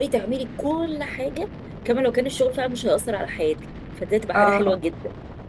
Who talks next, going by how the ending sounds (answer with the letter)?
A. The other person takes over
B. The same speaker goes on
B